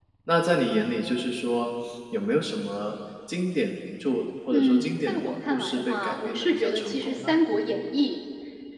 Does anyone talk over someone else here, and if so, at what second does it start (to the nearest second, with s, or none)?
5 s